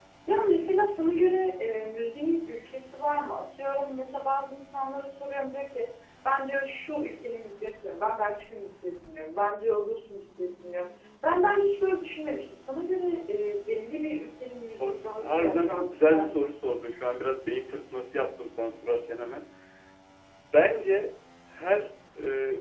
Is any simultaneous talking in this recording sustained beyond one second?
Yes, from 14.8 s

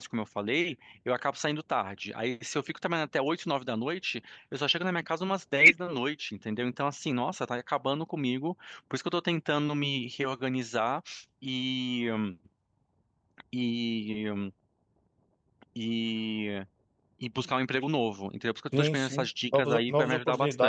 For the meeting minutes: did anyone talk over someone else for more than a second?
Yes, from 18.7 s

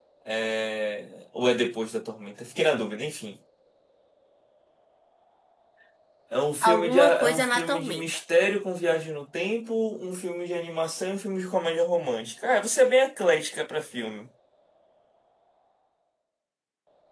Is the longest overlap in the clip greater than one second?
Yes, from 6.7 s

